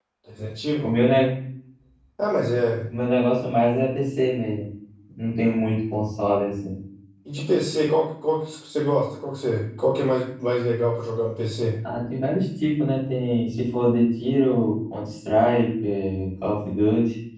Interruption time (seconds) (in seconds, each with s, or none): none